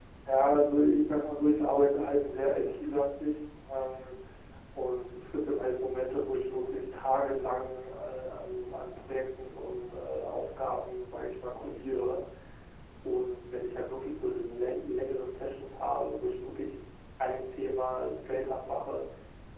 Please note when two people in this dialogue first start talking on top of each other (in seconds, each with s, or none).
none